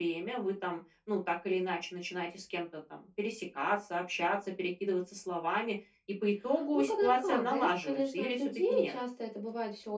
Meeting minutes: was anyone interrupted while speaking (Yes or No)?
Yes